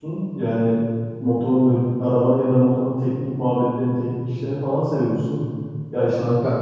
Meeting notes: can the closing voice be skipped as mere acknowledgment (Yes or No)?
Yes